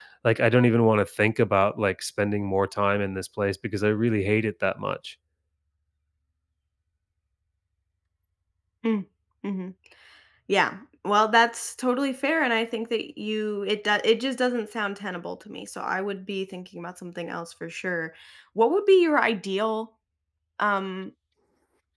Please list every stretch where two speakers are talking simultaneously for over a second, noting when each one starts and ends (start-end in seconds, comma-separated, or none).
none